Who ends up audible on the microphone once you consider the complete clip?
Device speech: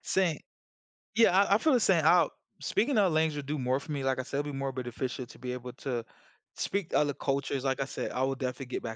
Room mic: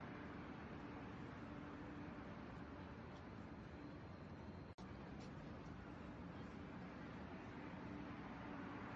neither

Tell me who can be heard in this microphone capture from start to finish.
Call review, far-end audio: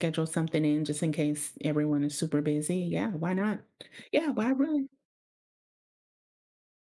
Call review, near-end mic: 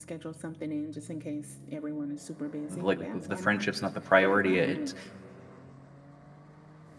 both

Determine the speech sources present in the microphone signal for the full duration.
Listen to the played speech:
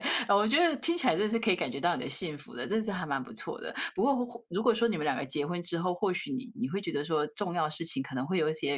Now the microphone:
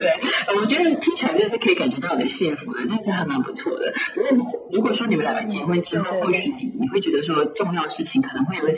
both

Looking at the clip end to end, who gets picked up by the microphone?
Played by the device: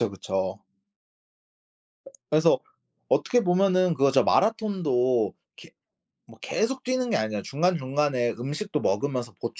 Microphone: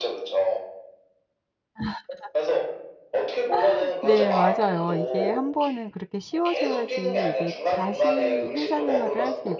both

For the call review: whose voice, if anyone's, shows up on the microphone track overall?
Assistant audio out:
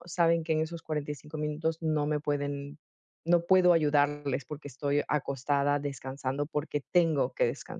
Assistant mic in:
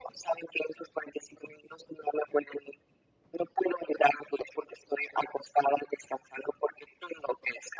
echo only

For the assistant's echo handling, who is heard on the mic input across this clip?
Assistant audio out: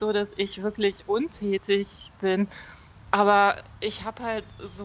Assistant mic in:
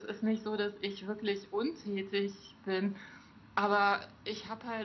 echo only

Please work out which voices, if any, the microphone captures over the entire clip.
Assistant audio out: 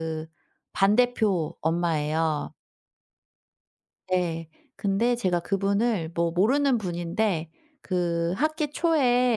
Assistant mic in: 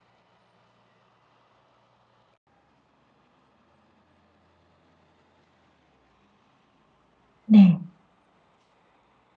user only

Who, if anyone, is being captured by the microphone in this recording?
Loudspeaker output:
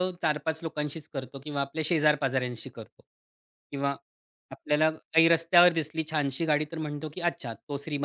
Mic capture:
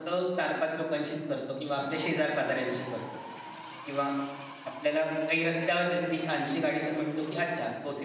echo only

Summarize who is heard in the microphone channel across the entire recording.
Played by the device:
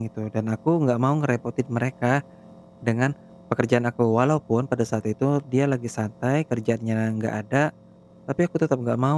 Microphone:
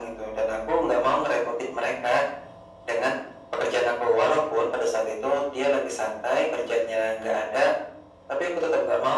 echo only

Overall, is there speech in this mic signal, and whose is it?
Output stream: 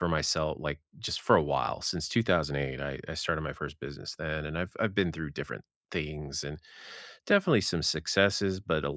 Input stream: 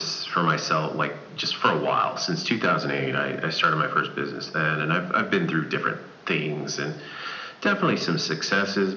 echo only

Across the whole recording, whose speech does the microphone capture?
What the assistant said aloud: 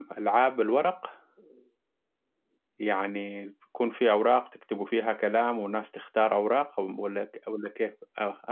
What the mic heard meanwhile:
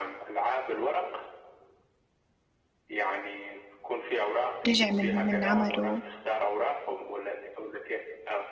both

